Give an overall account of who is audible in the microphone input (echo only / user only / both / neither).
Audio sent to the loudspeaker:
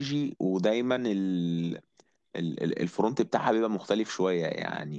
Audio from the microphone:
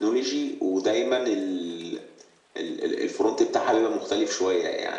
echo only